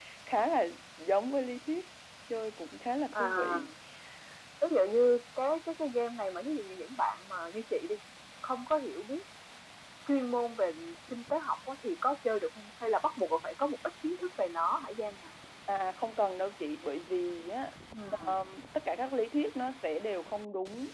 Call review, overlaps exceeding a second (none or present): none